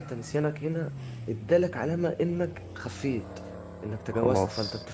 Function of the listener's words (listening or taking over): listening